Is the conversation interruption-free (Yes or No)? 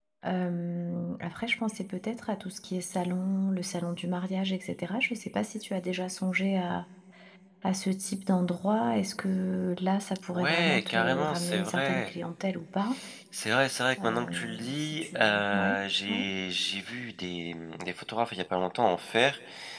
No